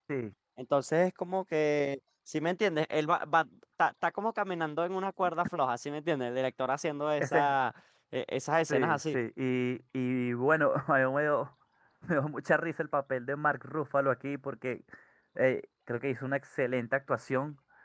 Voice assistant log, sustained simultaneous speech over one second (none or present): none